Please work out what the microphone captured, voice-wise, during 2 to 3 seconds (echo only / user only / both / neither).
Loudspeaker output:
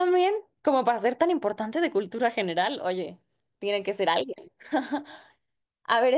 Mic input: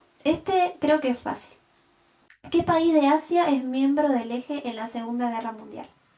user only